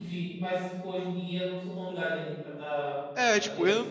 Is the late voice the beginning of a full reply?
Yes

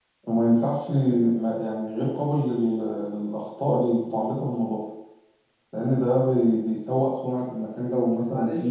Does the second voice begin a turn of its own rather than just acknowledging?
Yes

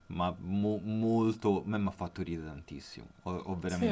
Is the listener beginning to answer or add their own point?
No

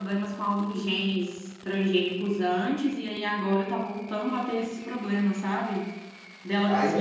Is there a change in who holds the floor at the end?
Yes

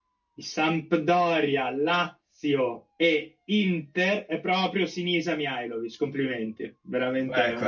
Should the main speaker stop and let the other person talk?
No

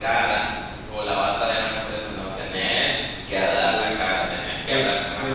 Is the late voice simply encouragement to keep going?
No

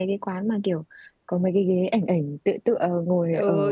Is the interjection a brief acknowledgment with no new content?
No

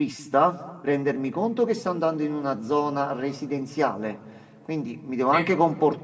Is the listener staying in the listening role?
Yes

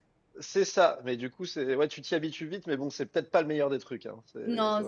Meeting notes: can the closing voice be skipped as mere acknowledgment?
No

